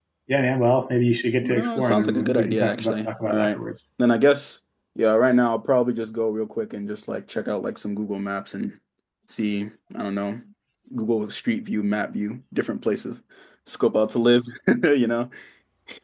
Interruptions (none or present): present